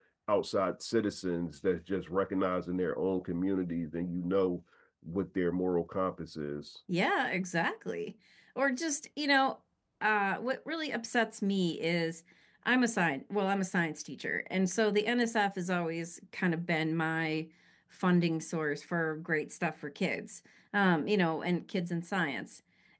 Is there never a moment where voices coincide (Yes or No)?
Yes